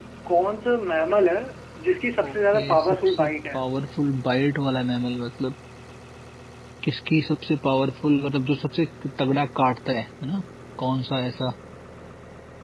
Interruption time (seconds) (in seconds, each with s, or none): 2.2 s